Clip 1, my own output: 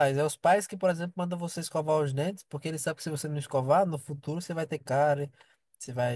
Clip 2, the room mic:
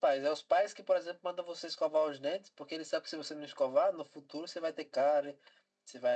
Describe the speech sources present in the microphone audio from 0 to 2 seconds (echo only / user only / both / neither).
echo only